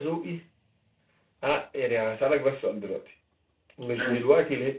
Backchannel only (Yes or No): Yes